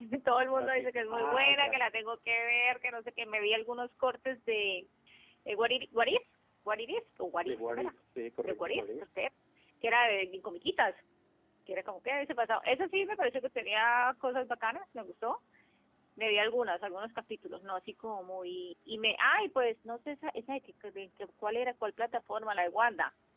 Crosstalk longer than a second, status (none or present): present